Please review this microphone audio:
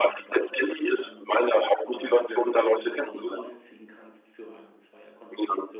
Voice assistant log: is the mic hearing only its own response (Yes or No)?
No